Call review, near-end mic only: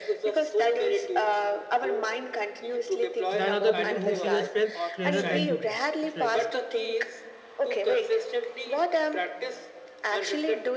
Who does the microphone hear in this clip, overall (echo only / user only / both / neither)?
both